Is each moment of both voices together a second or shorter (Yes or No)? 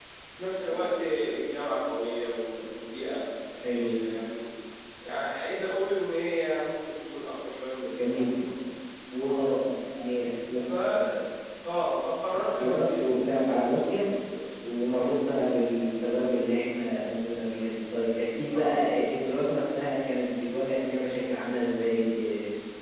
No